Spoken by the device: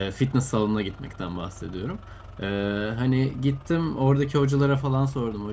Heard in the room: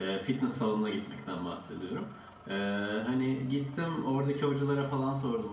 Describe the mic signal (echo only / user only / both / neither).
echo only